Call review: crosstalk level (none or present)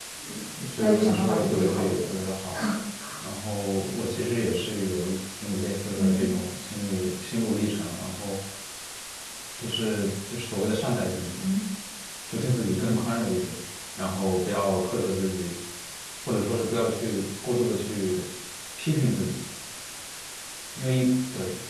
present